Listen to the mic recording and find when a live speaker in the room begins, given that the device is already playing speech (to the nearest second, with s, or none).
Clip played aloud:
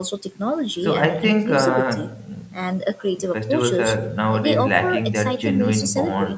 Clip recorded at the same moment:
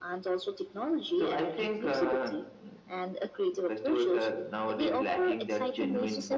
none